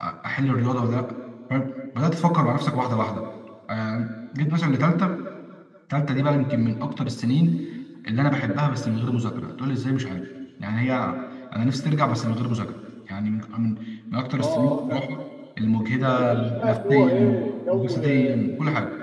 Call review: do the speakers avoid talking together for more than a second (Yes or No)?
No